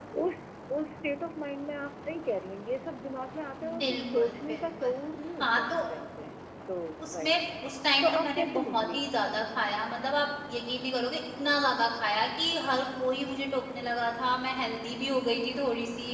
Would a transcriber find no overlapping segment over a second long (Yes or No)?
No